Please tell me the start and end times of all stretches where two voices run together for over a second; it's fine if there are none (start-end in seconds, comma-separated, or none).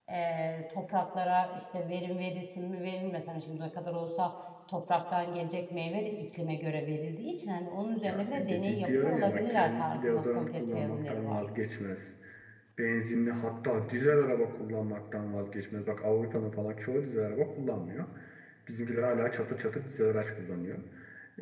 8.0-11.4